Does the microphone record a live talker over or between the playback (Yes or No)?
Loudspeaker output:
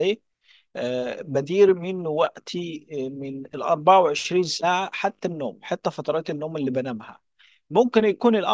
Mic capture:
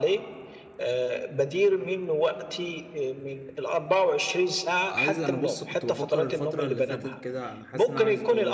Yes